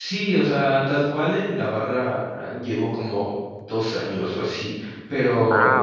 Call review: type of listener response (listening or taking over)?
listening